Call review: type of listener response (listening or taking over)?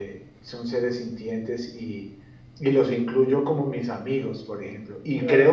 listening